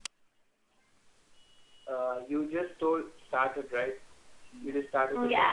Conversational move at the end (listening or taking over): taking over